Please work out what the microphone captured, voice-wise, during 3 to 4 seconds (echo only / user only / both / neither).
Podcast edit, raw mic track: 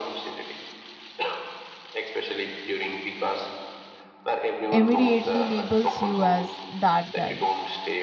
echo only